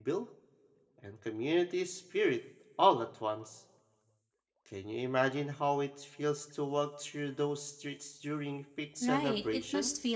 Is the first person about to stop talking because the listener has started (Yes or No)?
Yes